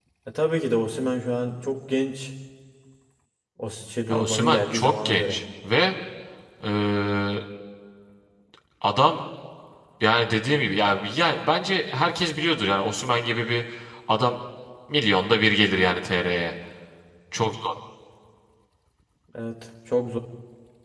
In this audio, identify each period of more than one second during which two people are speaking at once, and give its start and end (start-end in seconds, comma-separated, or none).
4.1-5.4